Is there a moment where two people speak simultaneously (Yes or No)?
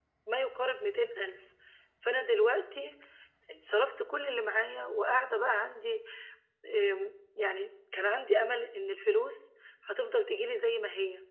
No